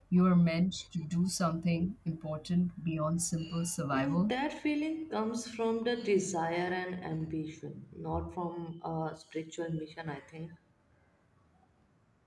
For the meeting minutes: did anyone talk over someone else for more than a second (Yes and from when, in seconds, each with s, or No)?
No